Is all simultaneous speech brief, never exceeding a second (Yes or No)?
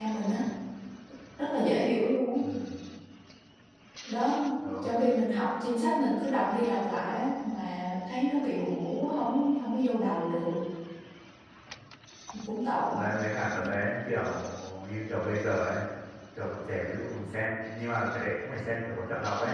Yes